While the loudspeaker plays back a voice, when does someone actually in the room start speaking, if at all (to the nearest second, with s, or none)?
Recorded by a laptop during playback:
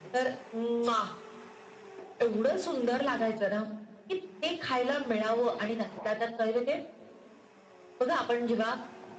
none